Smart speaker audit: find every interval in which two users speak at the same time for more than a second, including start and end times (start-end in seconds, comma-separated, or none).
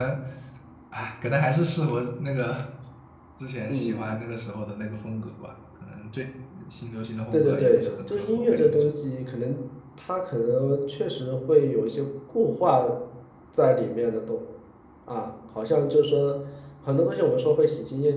7.3-8.9